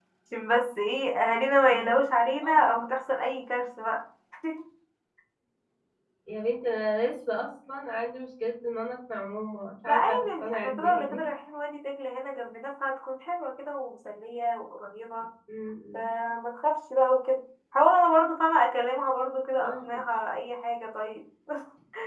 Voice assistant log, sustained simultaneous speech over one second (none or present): present